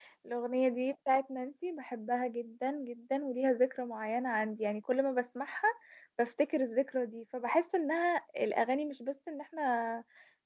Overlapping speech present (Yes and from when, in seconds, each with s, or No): No